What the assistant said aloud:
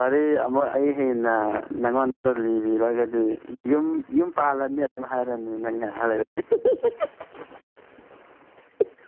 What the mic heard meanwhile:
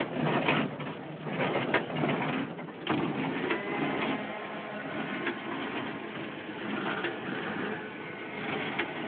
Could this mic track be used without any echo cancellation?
Yes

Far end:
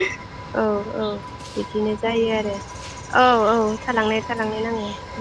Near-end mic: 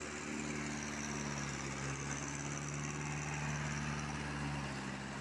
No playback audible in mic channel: Yes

